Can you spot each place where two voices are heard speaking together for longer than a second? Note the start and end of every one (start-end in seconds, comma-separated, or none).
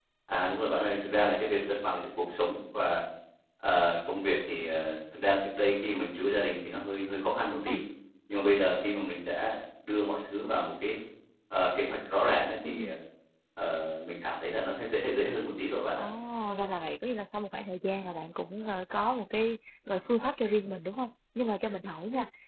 none